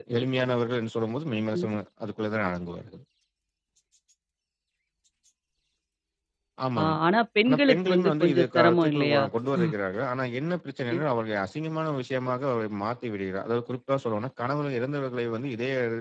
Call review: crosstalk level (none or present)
present